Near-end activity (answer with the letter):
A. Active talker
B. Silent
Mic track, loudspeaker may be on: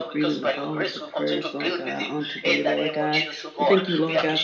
A